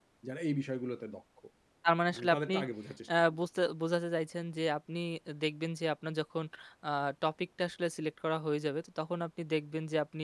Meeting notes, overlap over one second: none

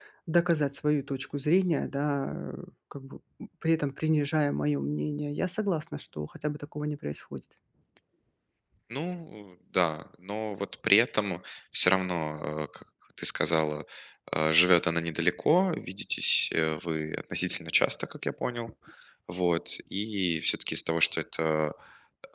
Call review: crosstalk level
none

